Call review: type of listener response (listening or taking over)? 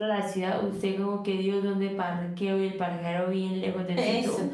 taking over